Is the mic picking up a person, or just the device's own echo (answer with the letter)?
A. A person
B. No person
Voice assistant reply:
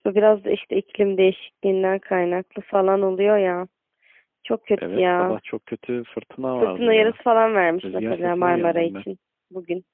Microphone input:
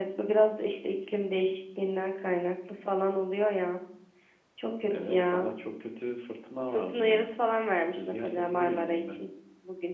B